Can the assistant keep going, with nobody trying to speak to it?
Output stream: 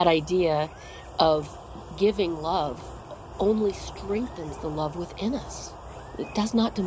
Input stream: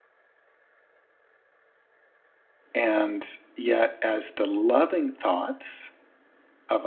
No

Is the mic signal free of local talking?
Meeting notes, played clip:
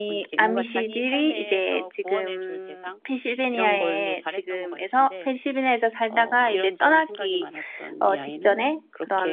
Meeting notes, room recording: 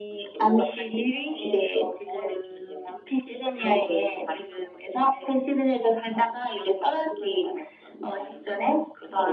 Yes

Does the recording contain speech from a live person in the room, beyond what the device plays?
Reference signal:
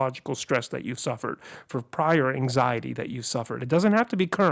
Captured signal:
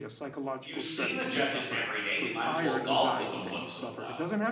Yes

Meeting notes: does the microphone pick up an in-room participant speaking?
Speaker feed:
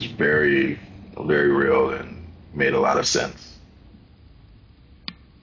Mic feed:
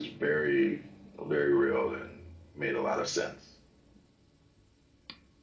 No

